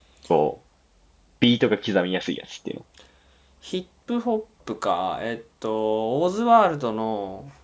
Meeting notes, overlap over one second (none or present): none